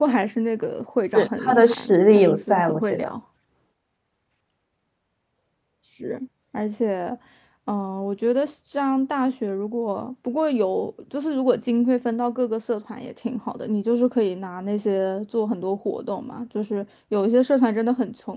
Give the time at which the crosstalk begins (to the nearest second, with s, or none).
1 s